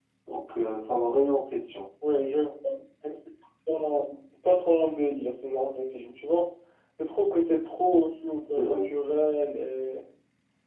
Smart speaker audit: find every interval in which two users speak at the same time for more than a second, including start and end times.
none

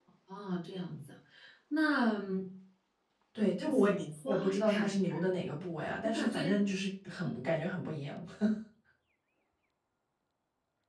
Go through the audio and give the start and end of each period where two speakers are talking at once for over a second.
3.7-5.0

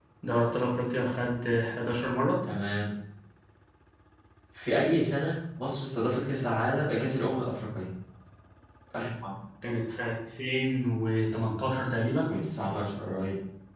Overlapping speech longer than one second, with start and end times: none

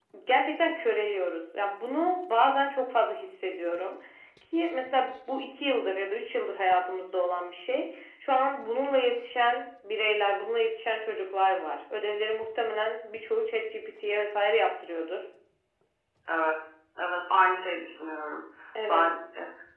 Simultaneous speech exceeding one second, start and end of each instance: none

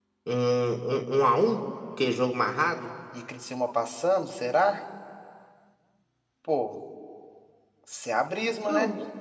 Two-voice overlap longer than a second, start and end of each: none

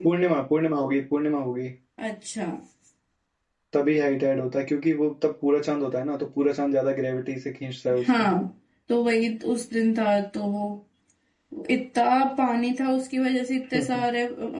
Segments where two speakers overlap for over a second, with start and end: none

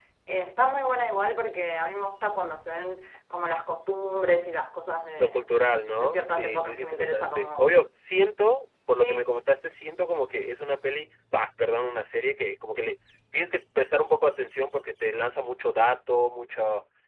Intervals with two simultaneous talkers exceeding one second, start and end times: 6.0-7.8

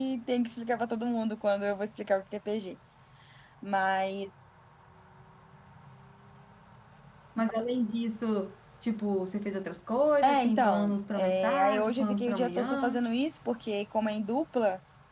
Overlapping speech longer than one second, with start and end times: 10.2-13.0

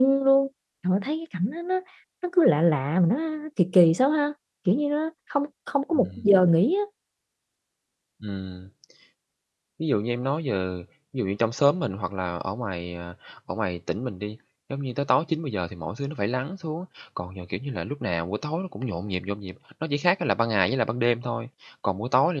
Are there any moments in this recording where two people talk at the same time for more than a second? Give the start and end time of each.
none

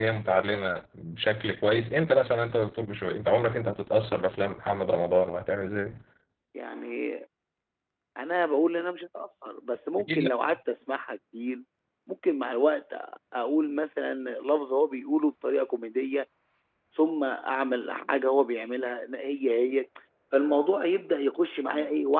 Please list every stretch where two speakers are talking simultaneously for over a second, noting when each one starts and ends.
none

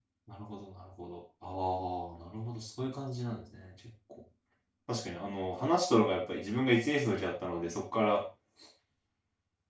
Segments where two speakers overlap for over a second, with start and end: none

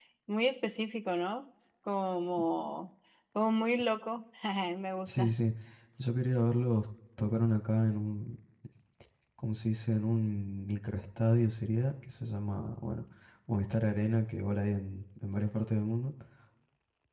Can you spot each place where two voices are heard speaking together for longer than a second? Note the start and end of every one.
none

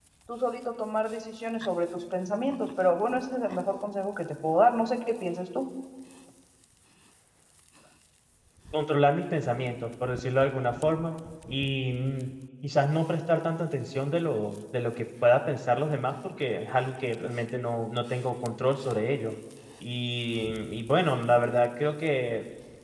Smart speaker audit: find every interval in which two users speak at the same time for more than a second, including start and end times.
none

